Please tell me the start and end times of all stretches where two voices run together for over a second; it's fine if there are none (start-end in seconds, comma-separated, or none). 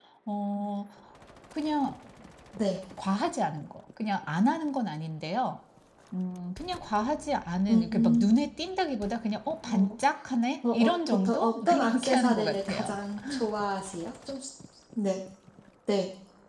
10.7-12.9